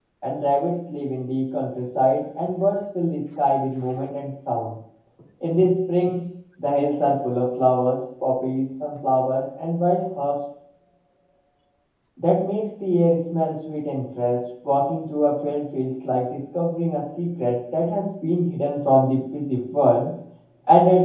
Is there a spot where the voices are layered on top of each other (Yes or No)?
No